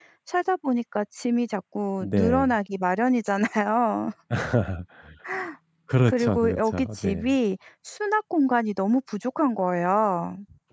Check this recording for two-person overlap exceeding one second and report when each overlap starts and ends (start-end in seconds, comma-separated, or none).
6.1-7.3